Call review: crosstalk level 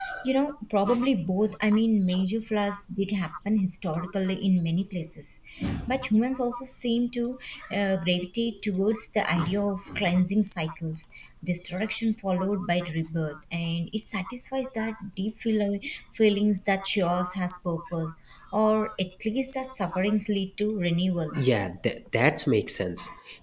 none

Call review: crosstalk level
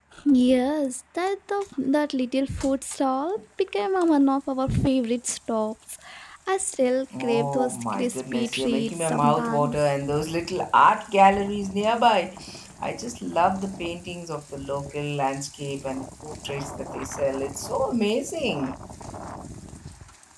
present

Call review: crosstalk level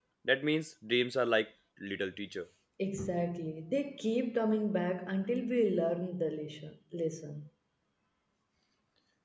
none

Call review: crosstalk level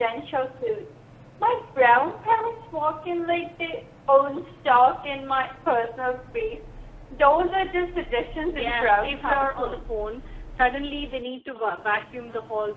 present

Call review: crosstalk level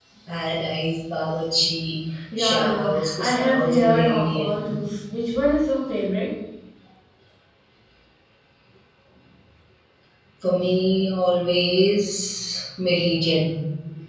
present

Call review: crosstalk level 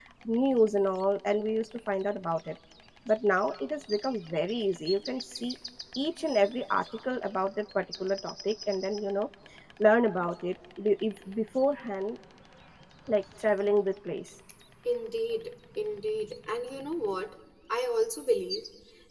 none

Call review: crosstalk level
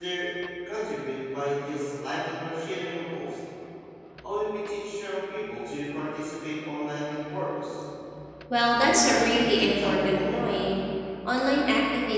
present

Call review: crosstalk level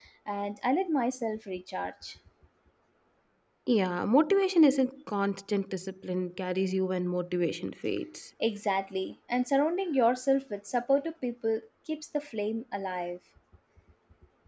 none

